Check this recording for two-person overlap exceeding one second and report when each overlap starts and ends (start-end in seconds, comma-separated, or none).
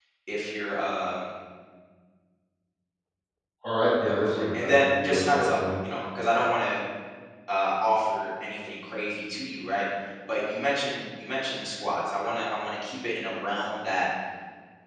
4.1-5.6